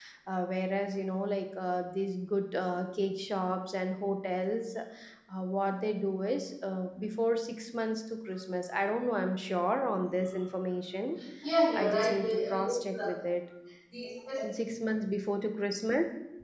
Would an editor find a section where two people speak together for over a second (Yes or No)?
Yes